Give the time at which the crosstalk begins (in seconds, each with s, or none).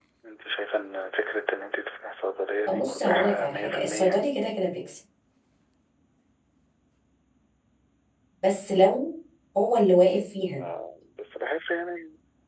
2.7 s